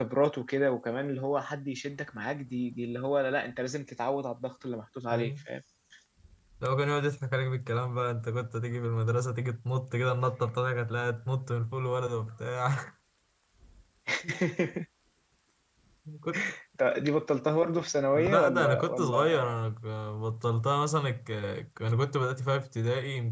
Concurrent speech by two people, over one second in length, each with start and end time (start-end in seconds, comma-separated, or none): 18.2-19.5